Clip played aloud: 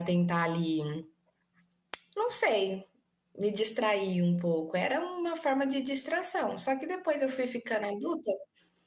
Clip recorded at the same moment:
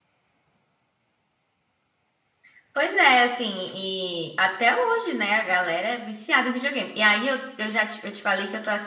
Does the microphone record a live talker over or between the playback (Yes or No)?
Yes